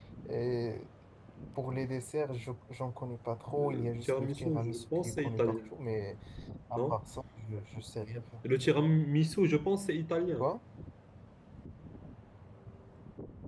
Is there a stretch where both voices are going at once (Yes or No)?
Yes